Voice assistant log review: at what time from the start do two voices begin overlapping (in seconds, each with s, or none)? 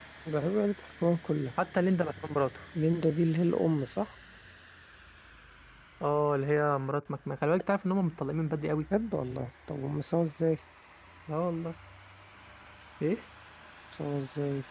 none